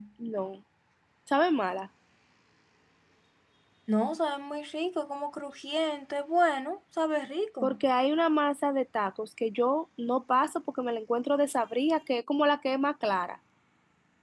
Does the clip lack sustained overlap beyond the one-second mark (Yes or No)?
Yes